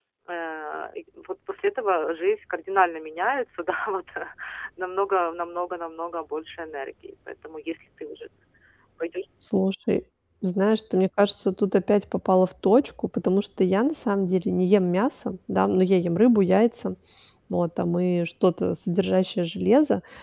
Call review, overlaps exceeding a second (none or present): none